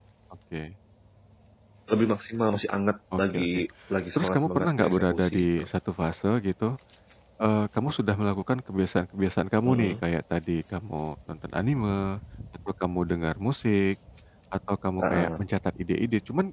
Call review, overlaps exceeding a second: present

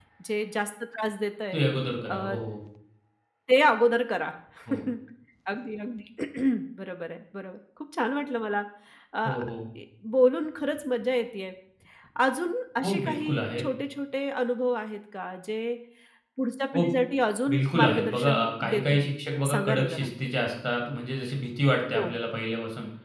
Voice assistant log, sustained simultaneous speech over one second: present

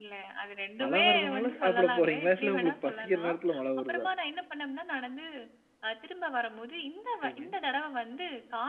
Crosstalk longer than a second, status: present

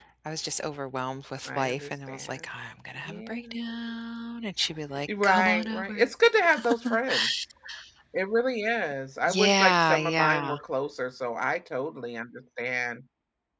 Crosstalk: present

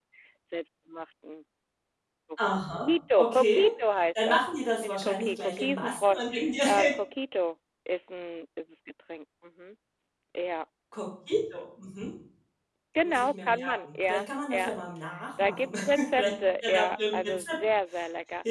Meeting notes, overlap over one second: present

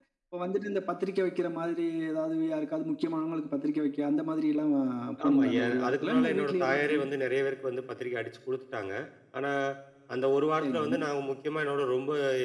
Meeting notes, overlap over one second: present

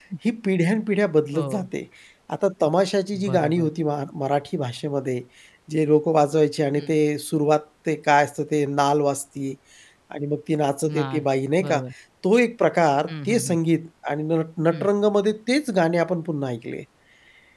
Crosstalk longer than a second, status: none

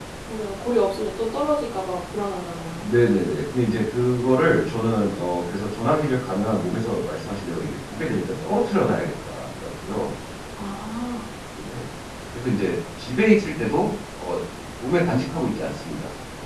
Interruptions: none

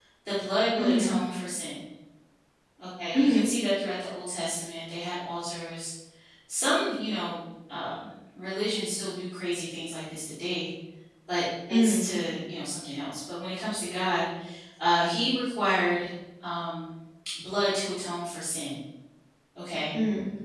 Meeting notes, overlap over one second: none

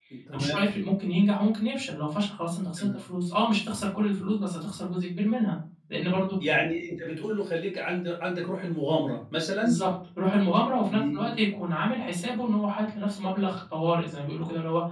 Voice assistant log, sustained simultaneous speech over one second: none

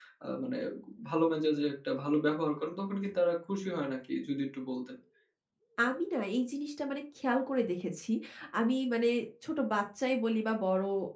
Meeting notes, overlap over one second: none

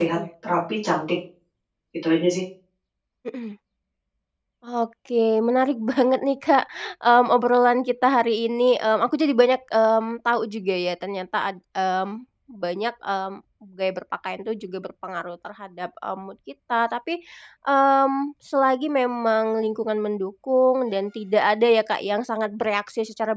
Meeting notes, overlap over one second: none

